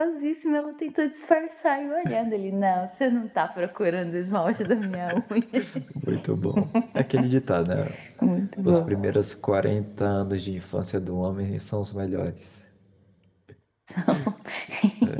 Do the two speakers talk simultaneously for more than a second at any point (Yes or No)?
No